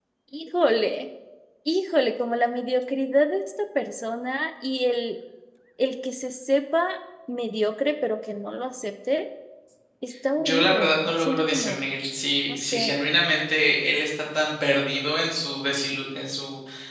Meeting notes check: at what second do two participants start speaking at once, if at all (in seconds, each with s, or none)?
10.4 s